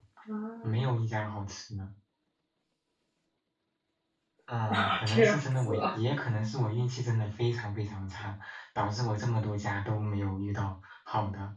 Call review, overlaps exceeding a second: present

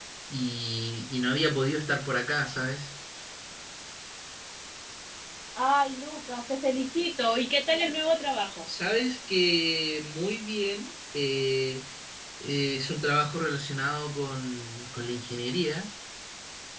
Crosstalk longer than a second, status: none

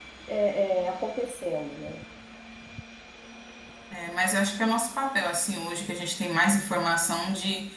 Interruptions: none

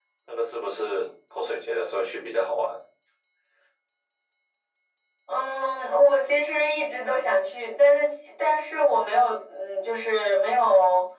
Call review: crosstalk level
none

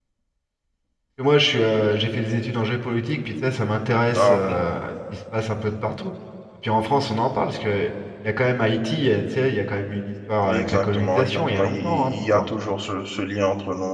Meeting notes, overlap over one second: present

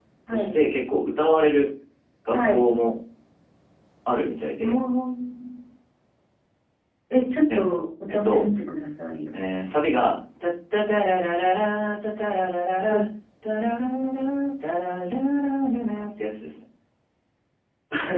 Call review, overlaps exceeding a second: none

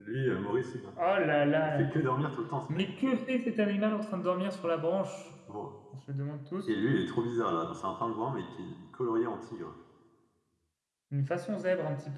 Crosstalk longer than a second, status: none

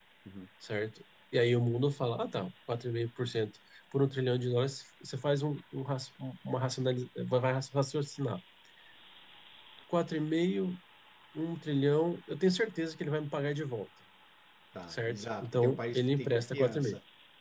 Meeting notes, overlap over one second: present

